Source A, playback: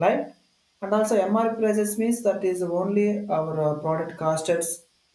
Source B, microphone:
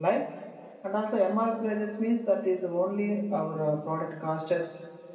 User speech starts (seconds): none

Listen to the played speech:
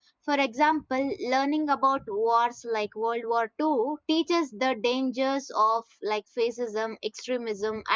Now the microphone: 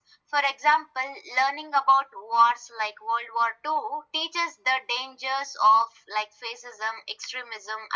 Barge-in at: none

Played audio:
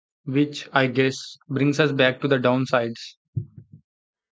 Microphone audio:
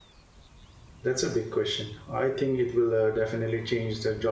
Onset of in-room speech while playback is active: 1.0 s

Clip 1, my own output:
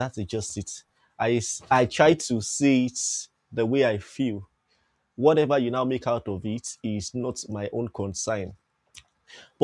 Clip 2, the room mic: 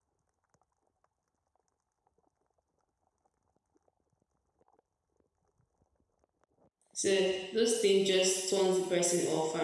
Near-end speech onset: 6.9 s

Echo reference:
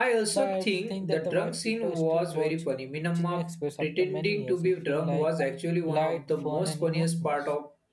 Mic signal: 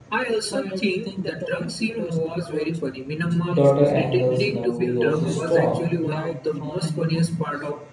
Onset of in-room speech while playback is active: 3.5 s

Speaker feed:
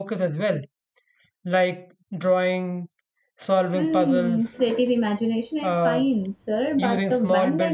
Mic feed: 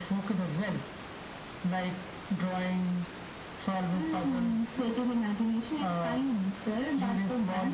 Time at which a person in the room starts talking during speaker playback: none

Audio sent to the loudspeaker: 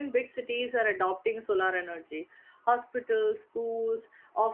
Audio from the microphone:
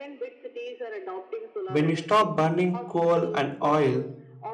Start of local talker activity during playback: 1.7 s

